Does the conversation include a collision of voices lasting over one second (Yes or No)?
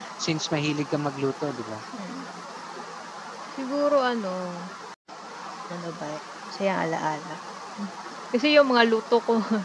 No